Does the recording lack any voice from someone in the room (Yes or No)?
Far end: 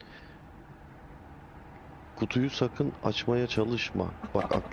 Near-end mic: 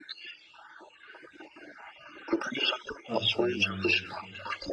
No